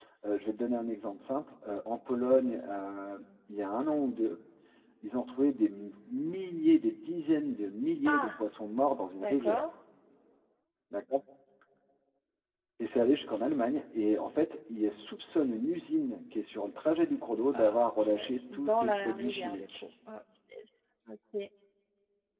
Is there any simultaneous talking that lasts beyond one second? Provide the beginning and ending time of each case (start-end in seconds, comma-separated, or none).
17.5-19.8